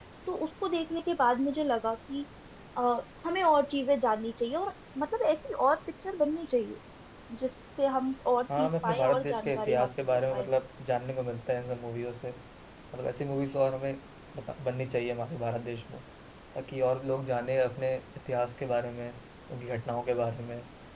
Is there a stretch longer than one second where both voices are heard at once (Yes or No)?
Yes